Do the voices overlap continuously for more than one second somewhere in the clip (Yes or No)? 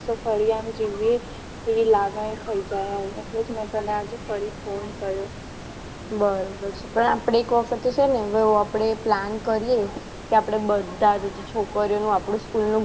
No